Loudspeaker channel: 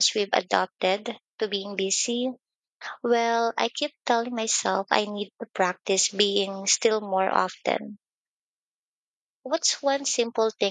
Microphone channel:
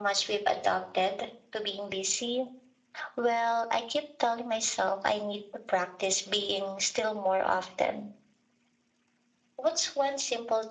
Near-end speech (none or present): none